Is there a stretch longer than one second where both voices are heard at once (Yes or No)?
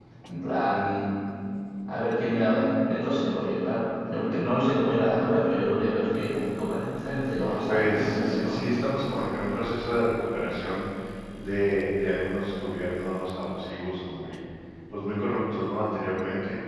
Yes